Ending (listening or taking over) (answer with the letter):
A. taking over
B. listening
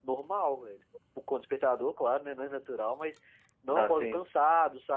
B